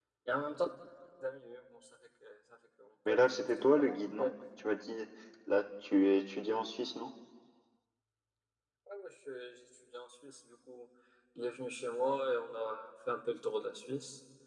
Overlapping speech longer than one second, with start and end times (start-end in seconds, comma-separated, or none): 3.1-4.3